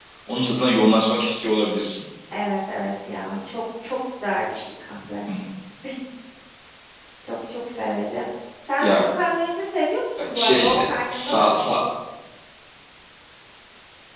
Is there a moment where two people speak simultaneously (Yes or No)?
Yes